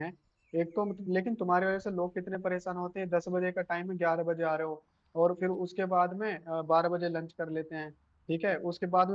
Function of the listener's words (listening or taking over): listening